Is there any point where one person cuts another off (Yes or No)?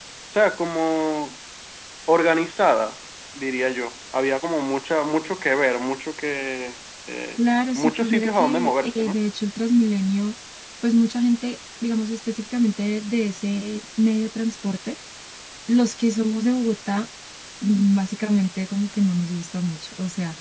Yes